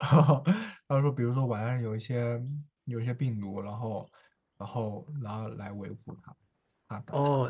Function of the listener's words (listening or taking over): taking over